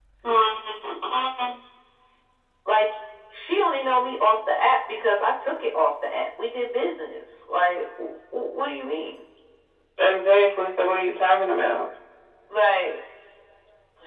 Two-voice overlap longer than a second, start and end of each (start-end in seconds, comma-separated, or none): none